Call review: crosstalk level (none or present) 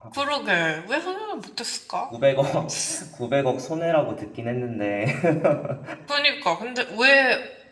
none